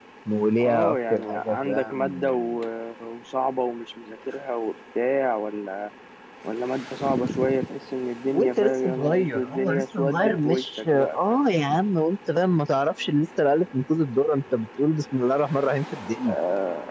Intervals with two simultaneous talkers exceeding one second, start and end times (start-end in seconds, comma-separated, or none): 0.6-2.3, 8.3-11.4